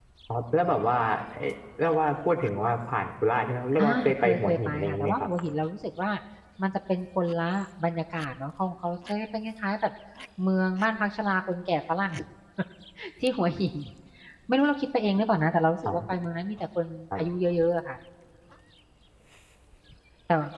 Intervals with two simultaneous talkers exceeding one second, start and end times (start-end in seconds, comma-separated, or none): 3.8-5.3